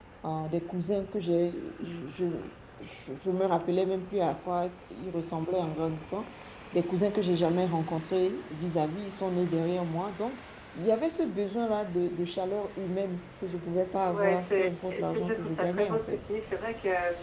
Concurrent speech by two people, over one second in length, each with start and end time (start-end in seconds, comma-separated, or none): 14.1-16.2